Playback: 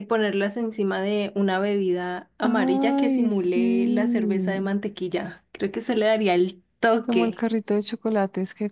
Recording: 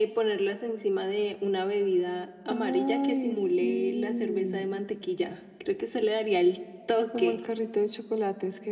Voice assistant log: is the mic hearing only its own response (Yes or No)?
Yes